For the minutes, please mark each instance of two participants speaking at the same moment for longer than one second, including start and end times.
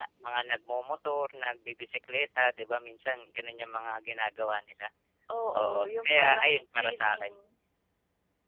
5.6-7.3

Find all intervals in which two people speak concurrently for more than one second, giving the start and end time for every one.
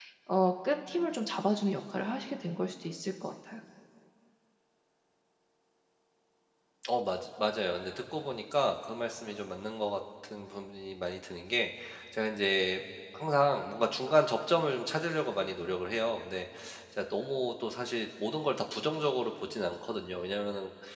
none

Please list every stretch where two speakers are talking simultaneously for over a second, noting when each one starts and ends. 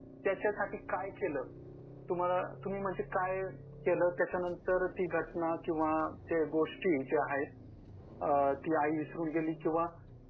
none

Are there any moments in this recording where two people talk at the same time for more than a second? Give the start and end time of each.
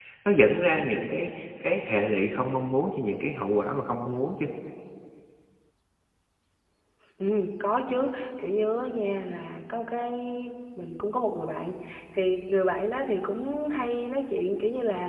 none

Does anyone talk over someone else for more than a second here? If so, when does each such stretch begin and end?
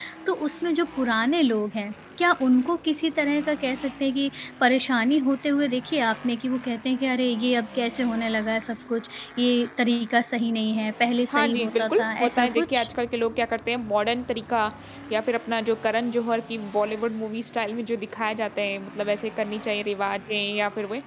11.3-12.9

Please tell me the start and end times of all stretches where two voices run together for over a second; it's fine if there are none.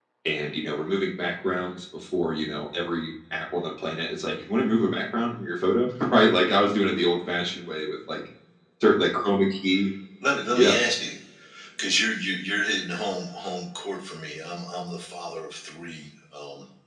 none

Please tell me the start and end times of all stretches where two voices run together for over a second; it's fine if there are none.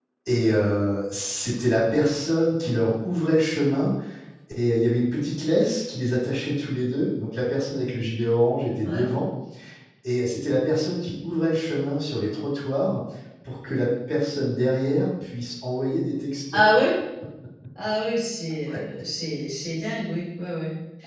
none

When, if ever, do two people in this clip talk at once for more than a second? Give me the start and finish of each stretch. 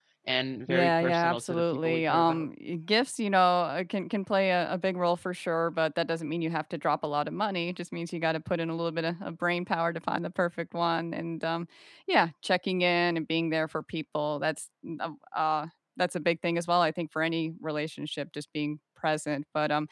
0.7-2.5

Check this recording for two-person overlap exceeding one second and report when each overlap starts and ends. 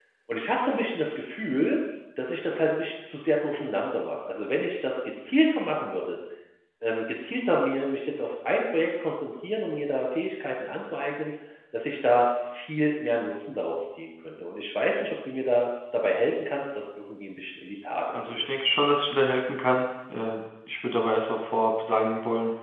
none

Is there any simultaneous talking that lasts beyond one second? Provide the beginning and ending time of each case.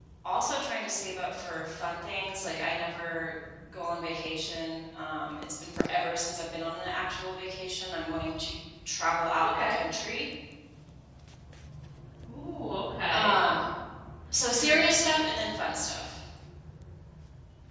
none

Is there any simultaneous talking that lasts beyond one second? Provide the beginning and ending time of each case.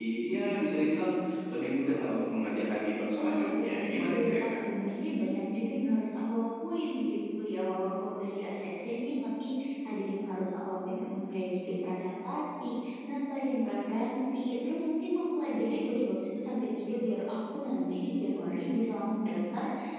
3.2-4.6

